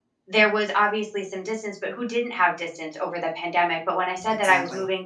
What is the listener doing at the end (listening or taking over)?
listening